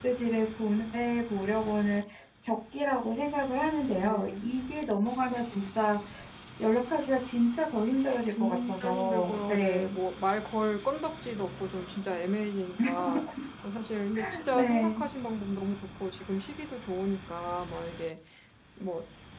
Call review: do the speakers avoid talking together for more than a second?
No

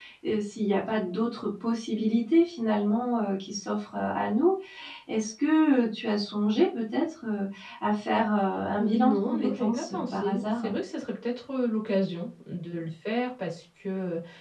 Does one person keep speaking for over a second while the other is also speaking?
Yes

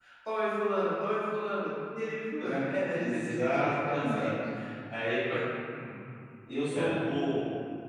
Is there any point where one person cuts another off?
Yes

